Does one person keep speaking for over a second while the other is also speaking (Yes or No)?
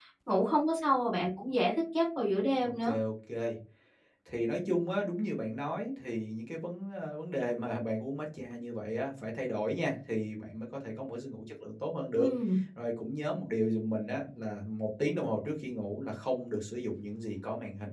No